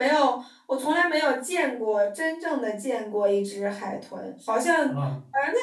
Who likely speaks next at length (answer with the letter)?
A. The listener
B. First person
B